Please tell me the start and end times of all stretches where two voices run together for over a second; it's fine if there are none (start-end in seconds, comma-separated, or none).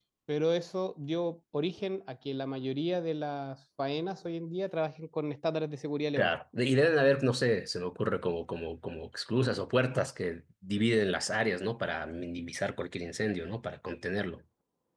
none